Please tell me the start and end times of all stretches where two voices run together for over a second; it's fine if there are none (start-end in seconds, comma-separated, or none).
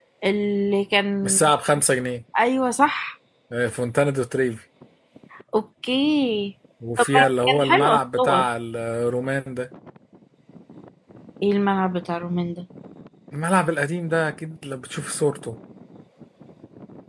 7.0-8.4